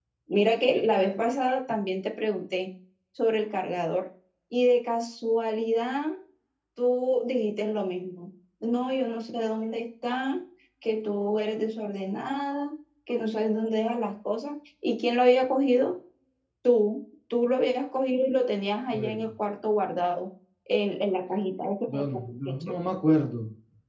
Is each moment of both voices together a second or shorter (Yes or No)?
Yes